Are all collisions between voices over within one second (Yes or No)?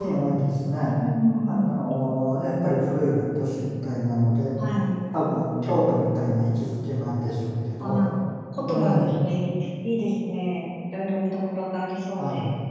Yes